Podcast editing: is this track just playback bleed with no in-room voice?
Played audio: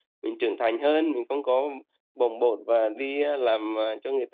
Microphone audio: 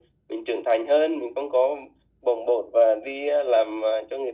Yes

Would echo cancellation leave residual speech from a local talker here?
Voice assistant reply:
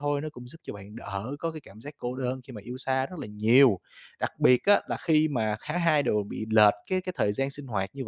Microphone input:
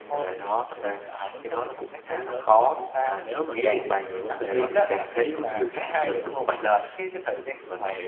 Yes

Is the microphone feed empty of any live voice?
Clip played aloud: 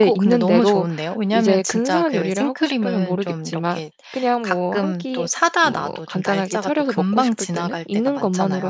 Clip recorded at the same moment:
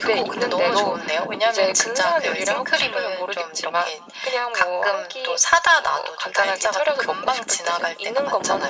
Yes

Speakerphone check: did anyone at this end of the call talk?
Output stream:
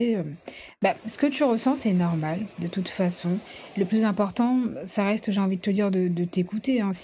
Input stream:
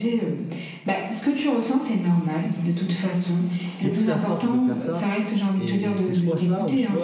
Yes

